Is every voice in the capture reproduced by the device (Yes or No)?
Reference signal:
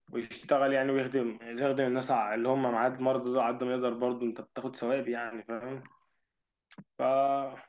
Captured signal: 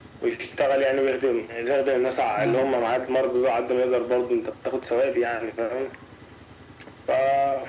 No